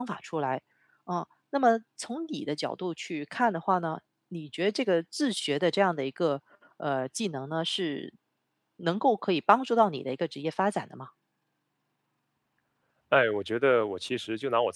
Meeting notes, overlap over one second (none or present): none